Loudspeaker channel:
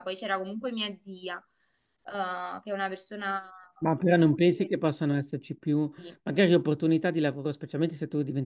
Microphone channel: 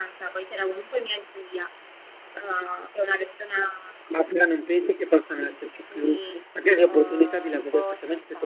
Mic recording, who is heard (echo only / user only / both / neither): both